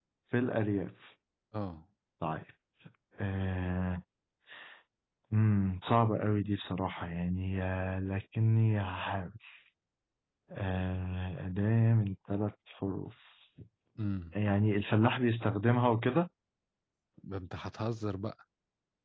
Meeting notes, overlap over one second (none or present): none